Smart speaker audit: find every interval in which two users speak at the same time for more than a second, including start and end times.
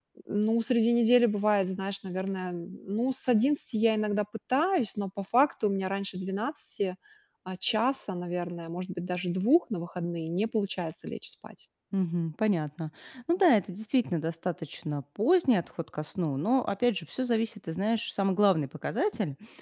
none

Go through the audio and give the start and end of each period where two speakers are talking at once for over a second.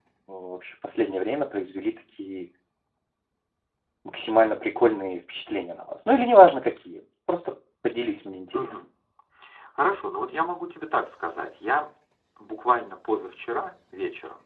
none

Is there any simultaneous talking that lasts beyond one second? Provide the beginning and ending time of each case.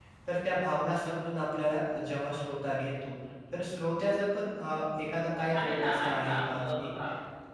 5.6-6.9

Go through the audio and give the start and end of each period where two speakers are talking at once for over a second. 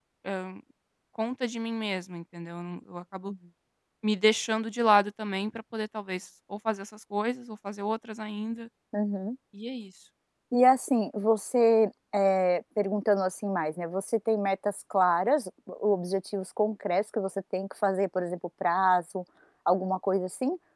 none

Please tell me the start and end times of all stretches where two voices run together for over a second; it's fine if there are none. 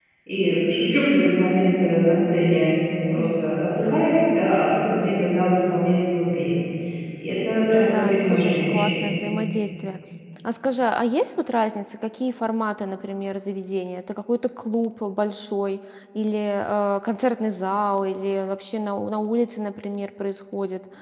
7.8-9.1

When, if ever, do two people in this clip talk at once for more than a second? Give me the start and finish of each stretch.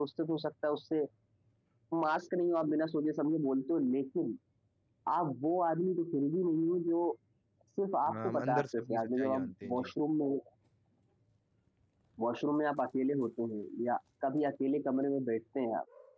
8.1-9.9

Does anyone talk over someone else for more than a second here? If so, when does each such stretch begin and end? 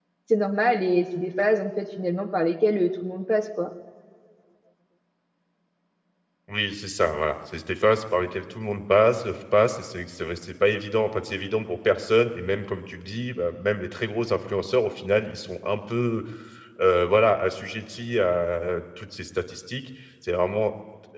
none

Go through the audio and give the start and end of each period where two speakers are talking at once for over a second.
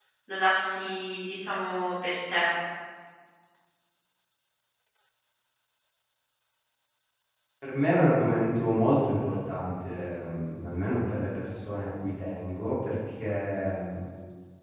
none

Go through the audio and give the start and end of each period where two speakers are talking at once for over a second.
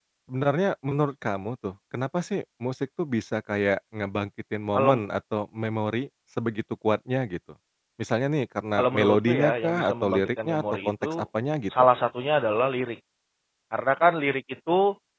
8.8-11.2

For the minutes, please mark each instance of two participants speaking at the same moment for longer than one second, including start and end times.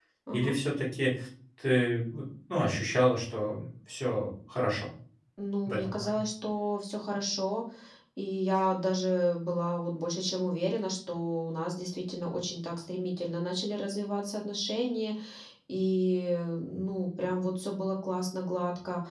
none

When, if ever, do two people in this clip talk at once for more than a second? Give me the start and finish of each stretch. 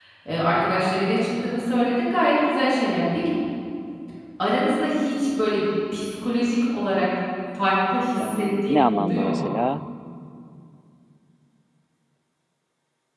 8.2-9.5

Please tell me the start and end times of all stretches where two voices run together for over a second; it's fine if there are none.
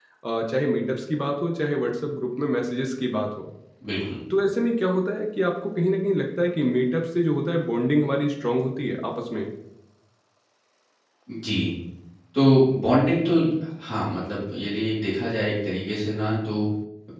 none

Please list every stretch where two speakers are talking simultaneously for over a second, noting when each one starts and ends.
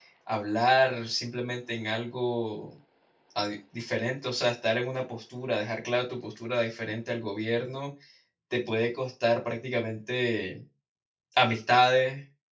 none

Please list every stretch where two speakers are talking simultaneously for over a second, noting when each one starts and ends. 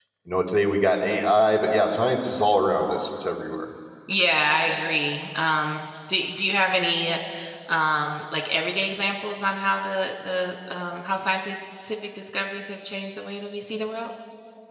none

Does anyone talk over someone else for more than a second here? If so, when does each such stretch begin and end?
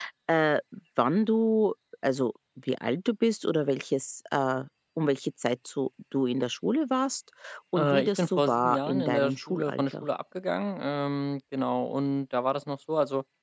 7.8-10.0

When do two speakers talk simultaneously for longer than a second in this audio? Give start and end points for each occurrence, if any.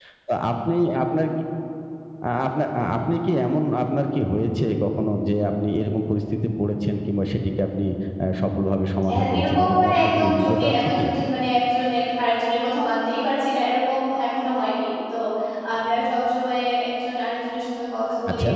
9.1-11.1

